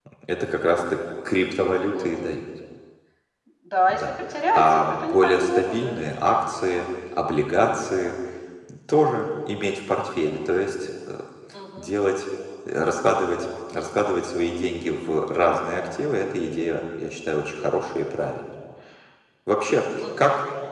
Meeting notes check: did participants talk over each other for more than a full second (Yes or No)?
Yes